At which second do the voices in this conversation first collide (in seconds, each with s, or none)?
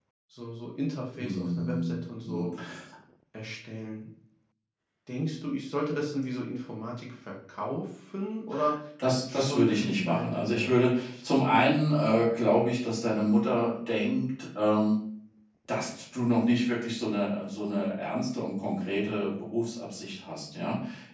1.2 s